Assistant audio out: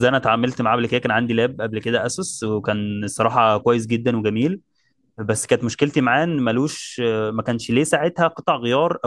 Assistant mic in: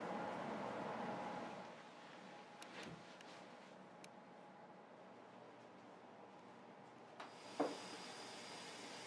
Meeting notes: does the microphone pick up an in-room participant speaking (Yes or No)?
No